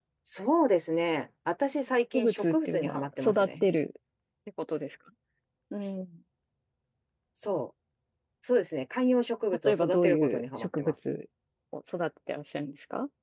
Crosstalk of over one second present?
Yes, from 2.1 s

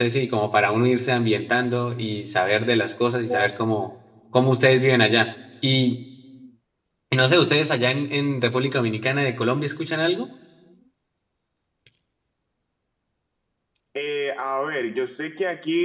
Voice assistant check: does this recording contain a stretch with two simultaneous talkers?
No

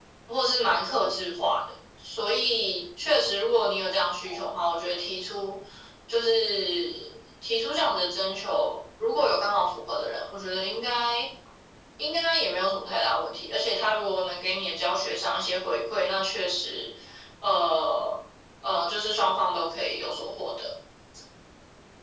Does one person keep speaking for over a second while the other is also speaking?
No

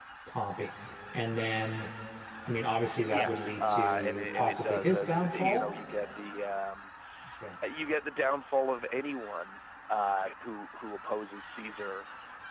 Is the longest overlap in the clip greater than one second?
Yes, from 3.0 s

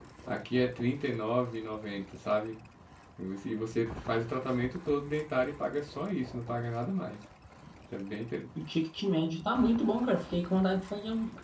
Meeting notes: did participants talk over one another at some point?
No

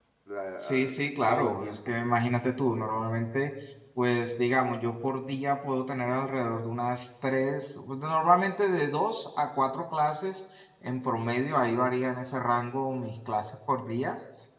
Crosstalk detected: Yes, from 0.6 s

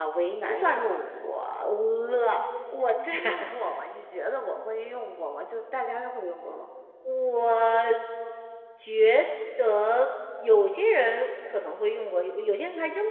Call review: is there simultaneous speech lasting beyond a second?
No

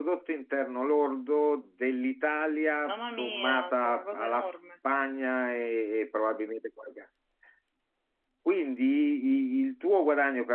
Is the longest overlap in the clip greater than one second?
Yes, from 2.8 s

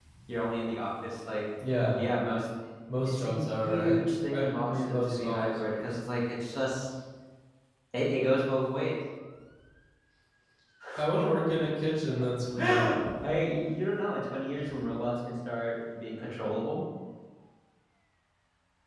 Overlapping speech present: Yes, from 3.1 s

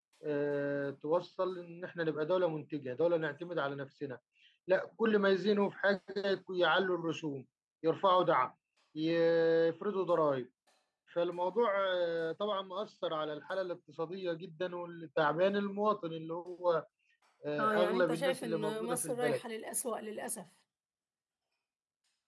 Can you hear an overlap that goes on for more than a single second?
Yes, from 17.6 s

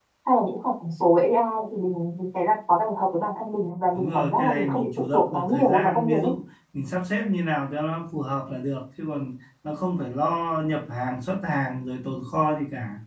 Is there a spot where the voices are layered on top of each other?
Yes, from 4.0 s

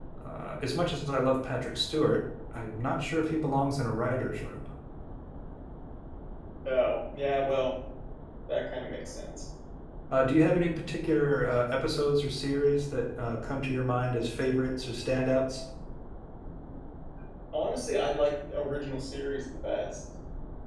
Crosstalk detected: No

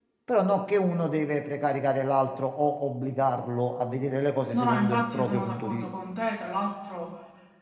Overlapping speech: Yes, from 4.5 s

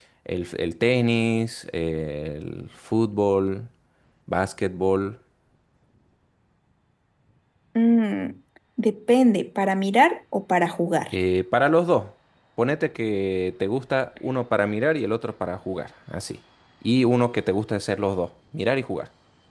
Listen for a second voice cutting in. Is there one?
No

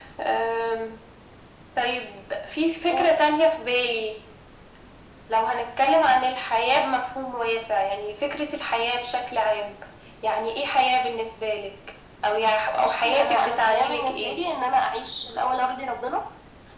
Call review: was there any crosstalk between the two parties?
Yes, from 12.8 s

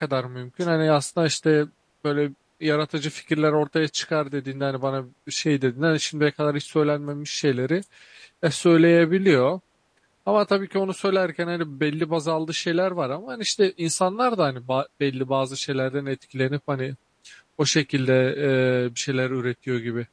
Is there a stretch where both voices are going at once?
No

